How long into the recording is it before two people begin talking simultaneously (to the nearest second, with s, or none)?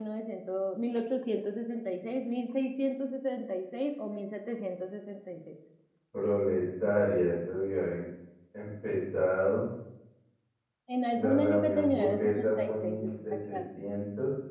11 s